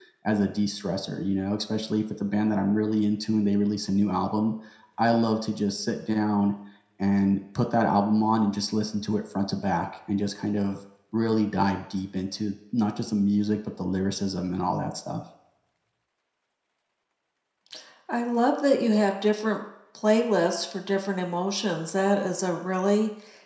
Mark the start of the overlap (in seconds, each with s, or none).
none